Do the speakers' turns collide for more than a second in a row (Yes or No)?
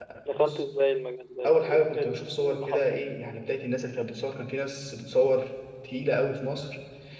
Yes